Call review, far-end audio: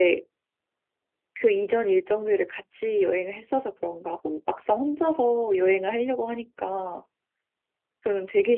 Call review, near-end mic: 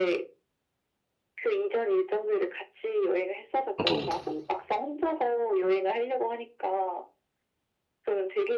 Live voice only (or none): 저도